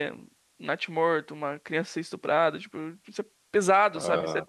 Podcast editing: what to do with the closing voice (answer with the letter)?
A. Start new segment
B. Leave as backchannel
B